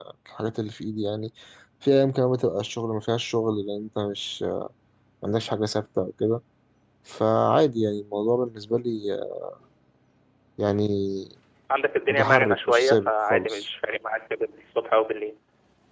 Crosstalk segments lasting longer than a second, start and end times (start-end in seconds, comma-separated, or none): 12.1-13.7